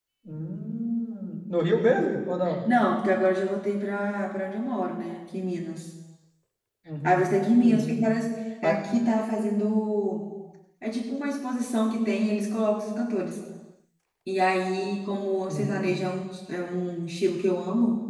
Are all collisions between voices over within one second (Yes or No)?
Yes